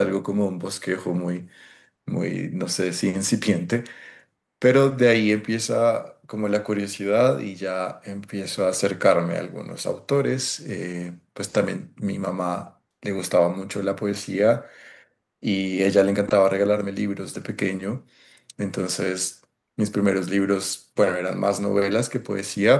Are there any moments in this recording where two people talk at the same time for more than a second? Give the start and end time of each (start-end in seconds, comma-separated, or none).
none